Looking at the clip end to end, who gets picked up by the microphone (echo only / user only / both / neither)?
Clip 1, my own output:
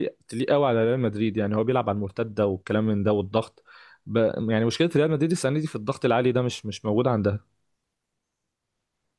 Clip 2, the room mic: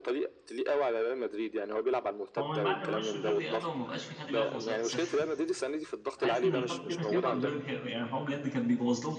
both